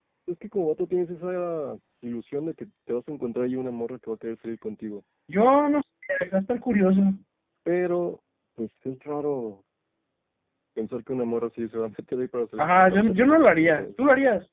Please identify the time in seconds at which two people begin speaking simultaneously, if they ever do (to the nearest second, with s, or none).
13 s